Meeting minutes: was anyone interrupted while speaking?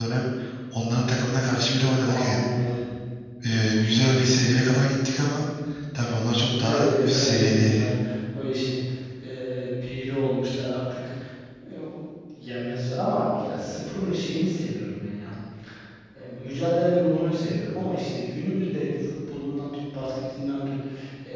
Yes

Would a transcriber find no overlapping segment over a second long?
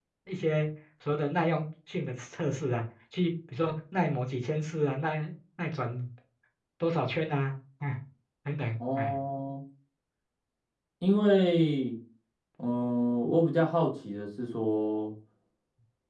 Yes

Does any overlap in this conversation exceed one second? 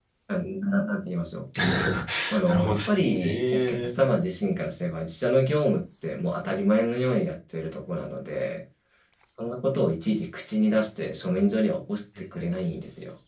Yes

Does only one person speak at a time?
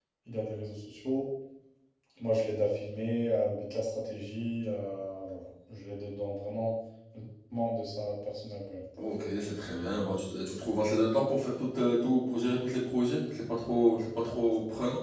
Yes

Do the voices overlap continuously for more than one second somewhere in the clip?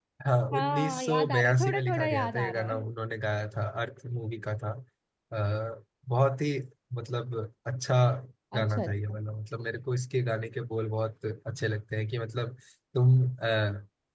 Yes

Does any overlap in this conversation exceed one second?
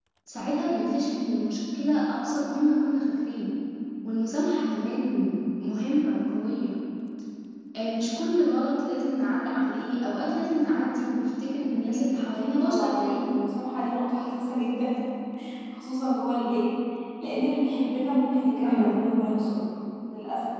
Yes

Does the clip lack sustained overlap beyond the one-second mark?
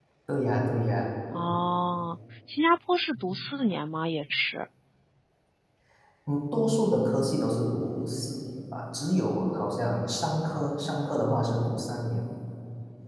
Yes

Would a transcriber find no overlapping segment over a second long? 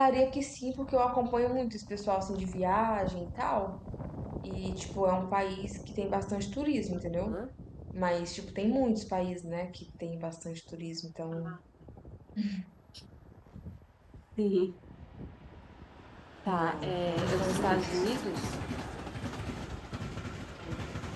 No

